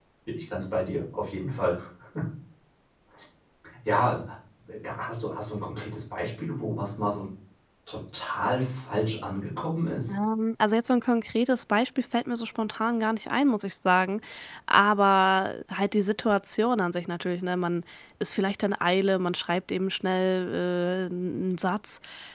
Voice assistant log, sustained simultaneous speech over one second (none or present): none